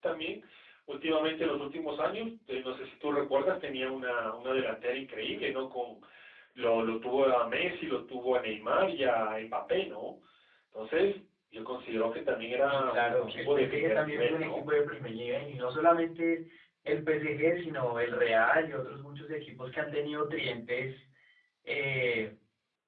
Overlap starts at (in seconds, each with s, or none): 12.6 s